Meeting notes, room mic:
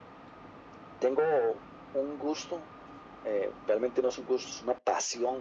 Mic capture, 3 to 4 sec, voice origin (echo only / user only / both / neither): echo only